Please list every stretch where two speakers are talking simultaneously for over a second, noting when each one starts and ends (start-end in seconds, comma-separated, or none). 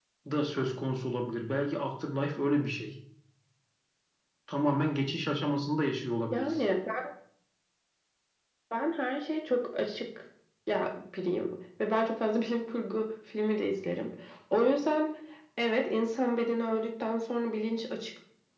none